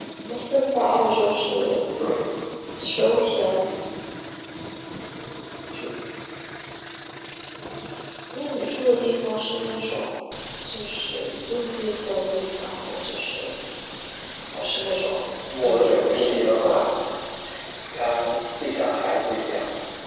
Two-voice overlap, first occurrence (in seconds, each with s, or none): 15.5 s